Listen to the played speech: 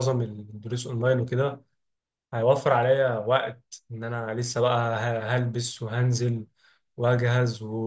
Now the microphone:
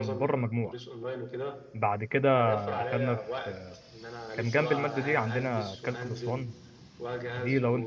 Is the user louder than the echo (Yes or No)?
Yes